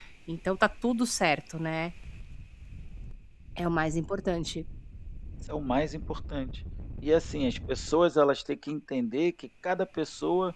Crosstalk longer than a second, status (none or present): none